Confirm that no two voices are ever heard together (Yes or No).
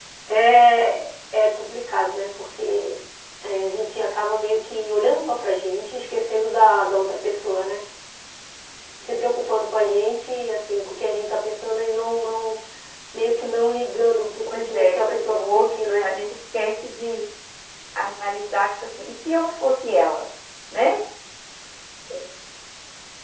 No